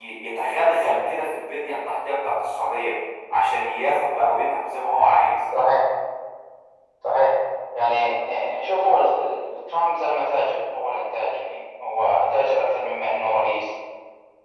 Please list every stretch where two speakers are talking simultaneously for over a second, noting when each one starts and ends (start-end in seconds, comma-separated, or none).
none